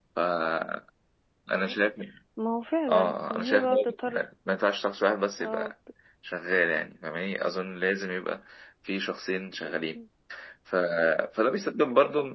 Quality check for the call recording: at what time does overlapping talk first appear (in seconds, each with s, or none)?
2.9 s